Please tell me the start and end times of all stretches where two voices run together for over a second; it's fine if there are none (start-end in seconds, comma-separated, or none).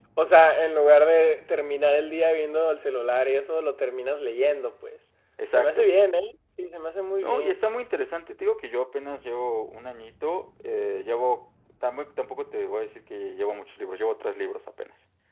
none